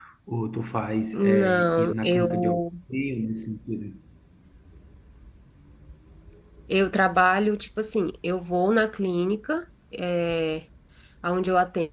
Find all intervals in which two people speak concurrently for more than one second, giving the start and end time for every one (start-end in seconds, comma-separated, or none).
1.1-2.6